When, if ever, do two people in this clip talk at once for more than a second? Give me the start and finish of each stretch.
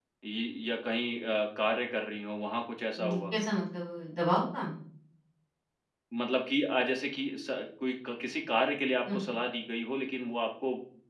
none

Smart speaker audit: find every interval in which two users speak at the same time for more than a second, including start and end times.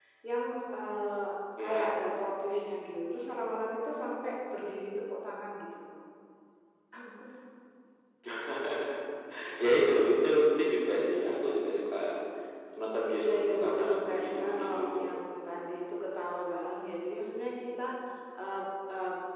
13.2-14.8

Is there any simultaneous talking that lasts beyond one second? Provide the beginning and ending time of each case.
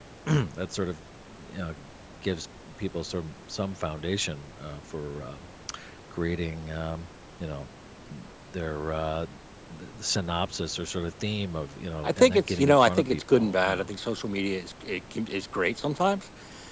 12.0-13.9

